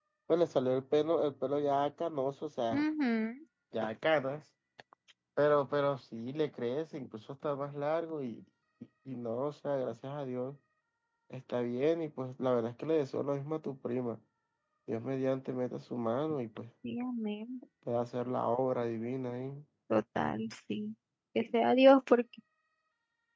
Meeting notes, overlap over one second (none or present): none